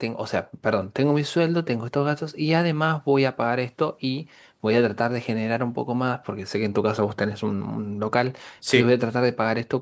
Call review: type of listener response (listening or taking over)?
listening